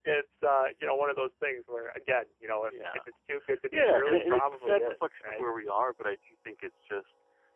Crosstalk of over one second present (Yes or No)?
Yes